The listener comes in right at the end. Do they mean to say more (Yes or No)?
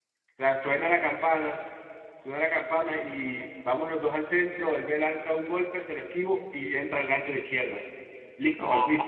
Yes